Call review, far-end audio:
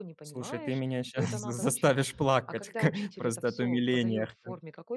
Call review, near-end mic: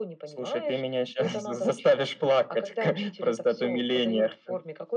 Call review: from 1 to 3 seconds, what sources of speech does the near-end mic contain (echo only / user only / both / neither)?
echo only